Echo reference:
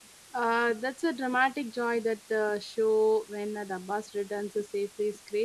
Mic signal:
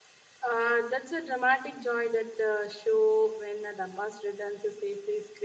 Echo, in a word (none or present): present